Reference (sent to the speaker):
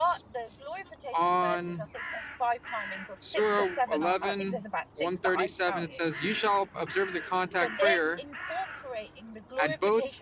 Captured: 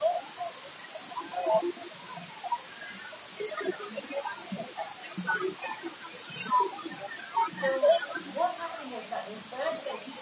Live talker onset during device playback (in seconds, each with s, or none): 7.5 s